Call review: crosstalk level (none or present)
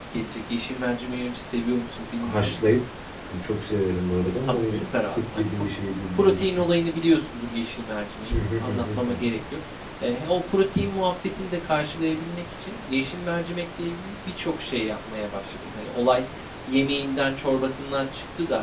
present